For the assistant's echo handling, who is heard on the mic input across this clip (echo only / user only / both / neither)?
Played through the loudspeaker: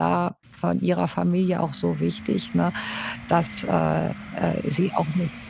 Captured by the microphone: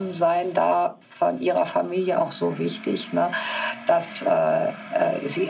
echo only